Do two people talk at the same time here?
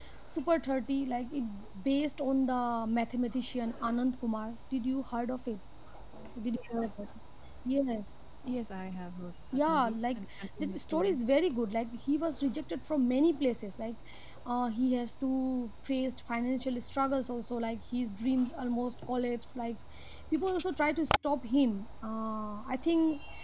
Yes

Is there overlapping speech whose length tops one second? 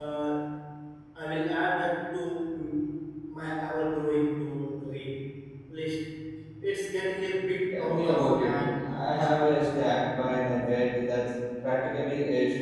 Yes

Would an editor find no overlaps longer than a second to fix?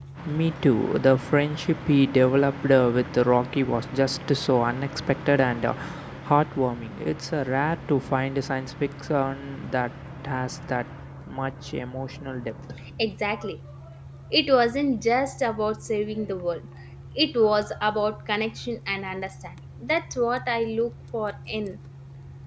Yes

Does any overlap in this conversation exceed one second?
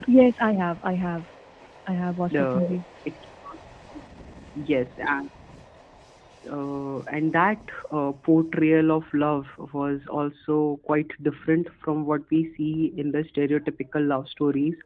No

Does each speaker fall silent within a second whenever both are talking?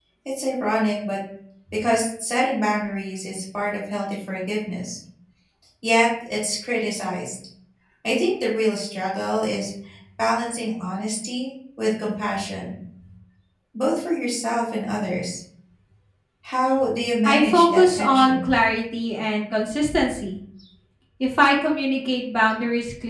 No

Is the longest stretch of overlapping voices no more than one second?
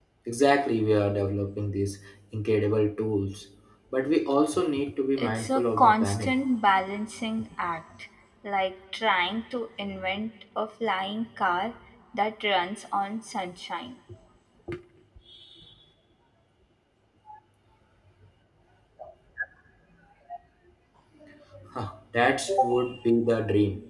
No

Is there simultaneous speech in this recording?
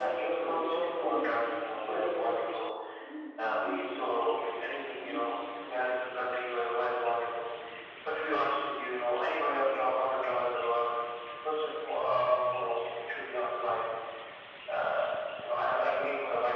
Yes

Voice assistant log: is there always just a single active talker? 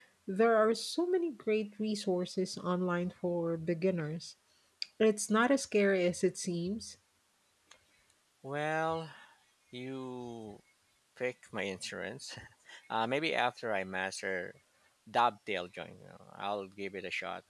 Yes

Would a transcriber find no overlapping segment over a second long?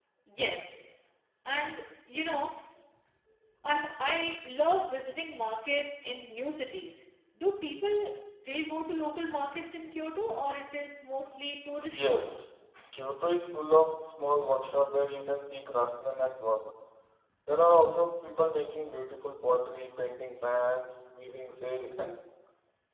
Yes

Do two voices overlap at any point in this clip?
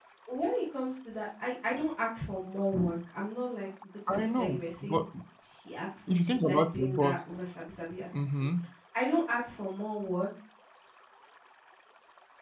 Yes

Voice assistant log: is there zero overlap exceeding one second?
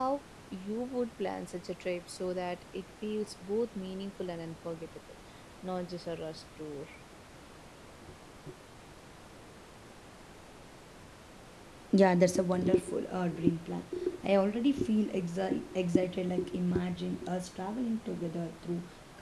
Yes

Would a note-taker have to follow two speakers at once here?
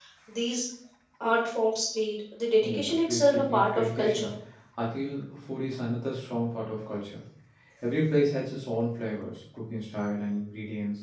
Yes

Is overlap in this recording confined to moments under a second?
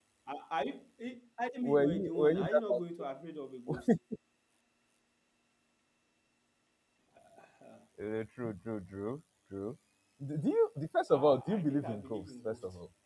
No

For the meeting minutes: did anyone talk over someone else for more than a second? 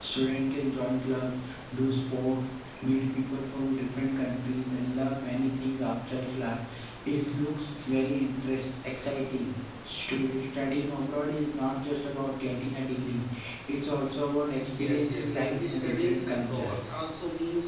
Yes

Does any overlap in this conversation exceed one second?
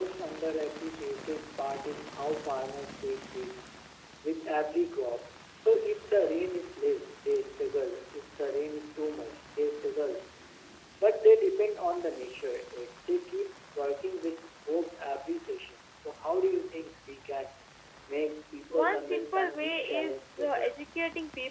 Yes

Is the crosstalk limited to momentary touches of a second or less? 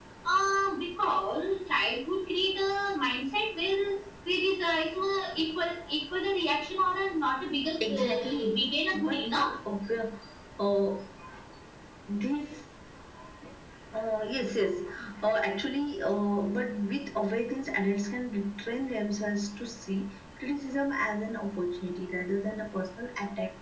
No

